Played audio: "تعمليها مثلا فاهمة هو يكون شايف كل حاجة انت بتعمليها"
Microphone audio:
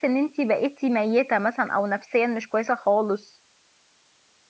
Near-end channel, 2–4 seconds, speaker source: user only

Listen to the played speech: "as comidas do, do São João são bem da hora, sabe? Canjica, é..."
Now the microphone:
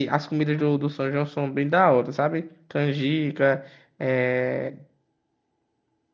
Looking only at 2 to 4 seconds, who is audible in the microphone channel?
echo only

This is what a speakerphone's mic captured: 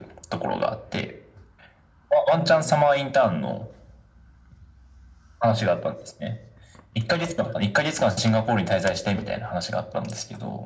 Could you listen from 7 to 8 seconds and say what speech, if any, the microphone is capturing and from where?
echo only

